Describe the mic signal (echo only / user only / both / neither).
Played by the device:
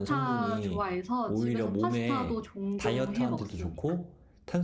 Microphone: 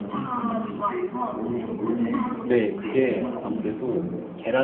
both